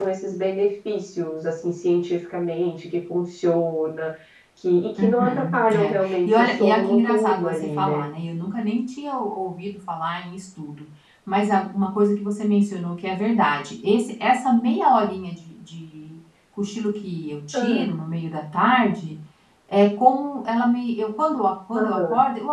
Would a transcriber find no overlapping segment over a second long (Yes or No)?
No